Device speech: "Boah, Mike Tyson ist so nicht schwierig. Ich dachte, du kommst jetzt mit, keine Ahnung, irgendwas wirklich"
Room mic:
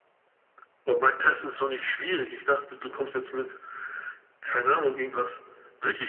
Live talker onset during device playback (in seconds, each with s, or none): none